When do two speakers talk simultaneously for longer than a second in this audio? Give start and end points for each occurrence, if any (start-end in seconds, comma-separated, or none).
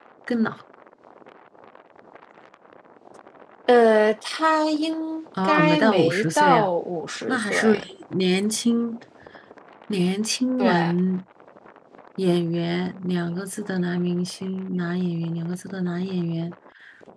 5.4-6.7